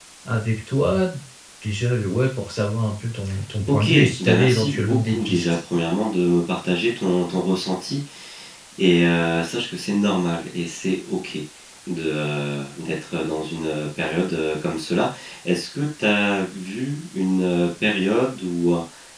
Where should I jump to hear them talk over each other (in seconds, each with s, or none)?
3.6 s